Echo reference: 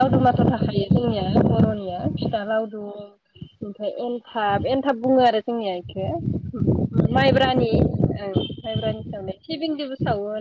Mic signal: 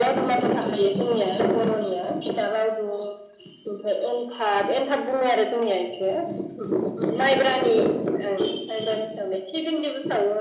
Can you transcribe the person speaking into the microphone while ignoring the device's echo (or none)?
none